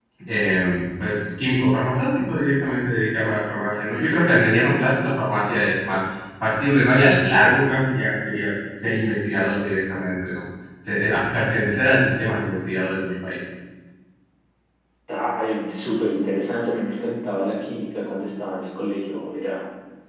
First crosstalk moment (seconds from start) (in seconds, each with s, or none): none